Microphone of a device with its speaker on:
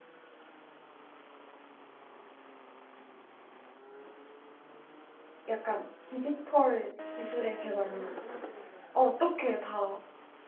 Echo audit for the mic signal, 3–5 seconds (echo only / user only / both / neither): neither